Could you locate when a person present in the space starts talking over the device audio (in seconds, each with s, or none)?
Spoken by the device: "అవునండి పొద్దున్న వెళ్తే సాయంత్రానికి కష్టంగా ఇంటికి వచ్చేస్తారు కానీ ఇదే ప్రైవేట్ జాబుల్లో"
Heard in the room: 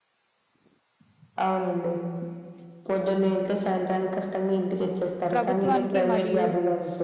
5.3 s